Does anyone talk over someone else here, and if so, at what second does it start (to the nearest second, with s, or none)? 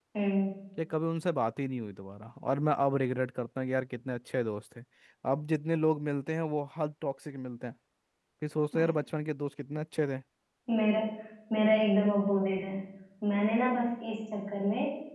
none